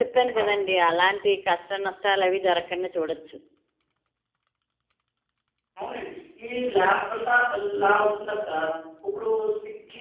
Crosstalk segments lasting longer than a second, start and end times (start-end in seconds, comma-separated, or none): none